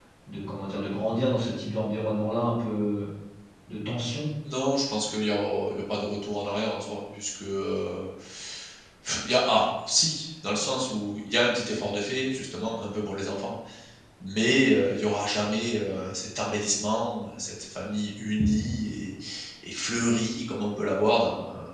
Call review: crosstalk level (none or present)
none